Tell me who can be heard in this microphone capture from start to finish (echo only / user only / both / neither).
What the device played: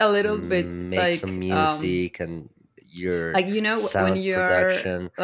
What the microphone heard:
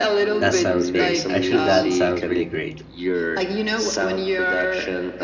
both